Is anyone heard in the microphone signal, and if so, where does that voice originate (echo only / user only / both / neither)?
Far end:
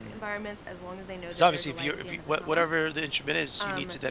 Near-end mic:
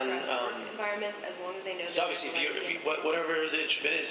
echo only